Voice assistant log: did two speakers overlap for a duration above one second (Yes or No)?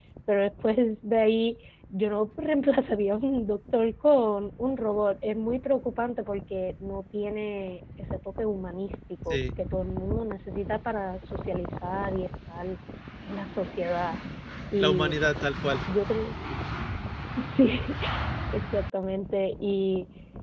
No